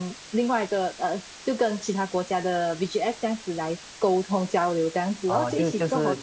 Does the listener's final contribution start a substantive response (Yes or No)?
Yes